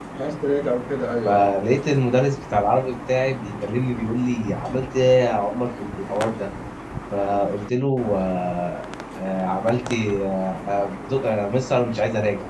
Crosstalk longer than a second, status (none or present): none